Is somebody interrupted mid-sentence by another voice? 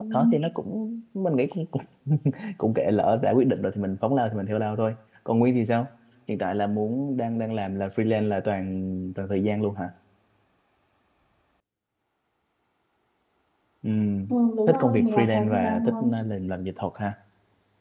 Yes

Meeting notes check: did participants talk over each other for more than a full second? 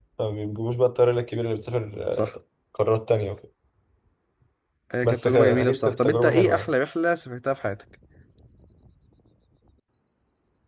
Yes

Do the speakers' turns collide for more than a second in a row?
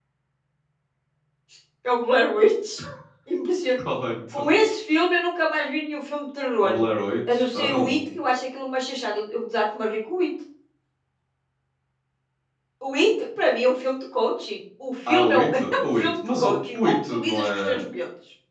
Yes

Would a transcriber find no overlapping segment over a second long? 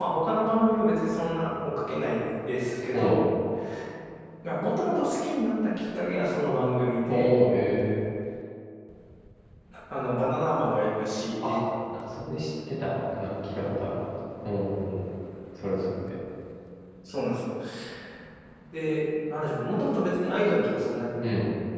Yes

